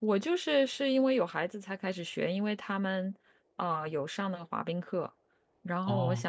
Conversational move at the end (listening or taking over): listening